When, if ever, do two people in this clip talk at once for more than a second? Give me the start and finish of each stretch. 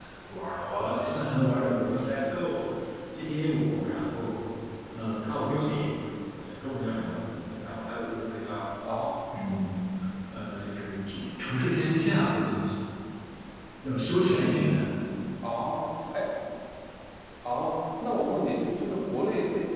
none

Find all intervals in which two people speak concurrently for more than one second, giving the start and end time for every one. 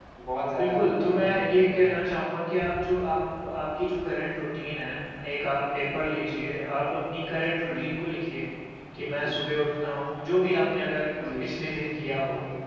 0.6-1.8

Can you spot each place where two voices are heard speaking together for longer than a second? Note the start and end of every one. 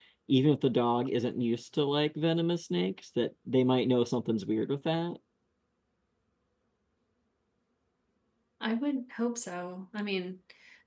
none

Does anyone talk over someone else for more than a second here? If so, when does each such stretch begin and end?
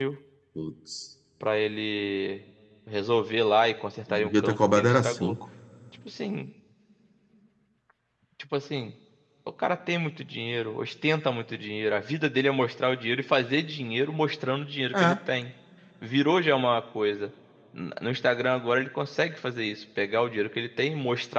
4.1-5.3

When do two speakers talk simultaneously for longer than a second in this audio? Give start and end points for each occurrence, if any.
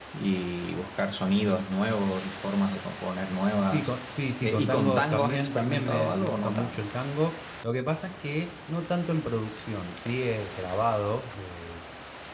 4.4-6.8

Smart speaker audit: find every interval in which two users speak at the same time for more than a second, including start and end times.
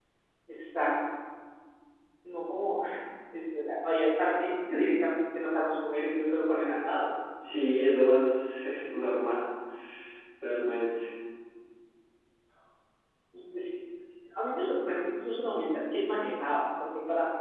none

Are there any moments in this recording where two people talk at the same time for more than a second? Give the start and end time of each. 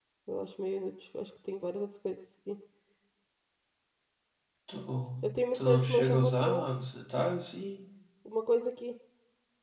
5.2-6.7

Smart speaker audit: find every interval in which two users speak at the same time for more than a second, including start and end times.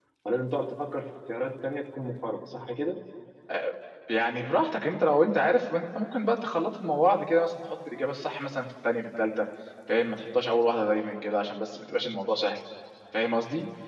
none

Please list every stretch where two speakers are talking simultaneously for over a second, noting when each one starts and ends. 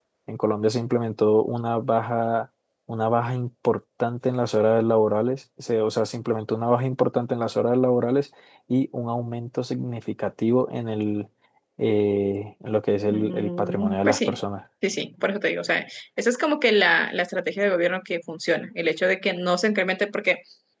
13.1-14.3

